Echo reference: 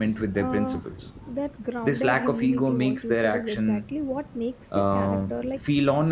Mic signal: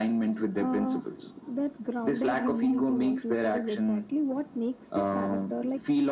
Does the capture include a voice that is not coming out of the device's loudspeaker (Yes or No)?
No